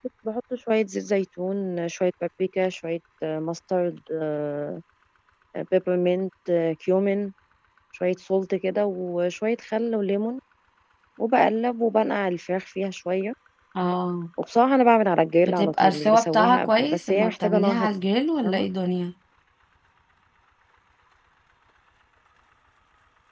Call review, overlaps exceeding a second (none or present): present